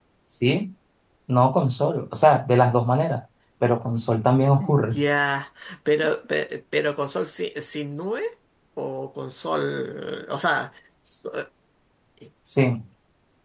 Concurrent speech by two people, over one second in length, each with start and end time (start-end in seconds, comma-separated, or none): none